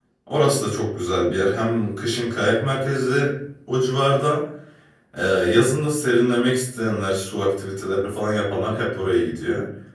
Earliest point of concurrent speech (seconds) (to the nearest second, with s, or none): none